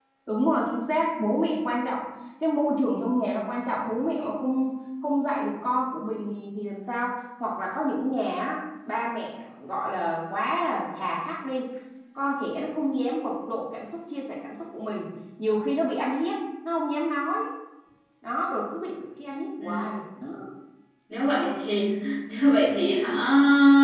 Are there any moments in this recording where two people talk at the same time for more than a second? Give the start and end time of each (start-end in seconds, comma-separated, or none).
none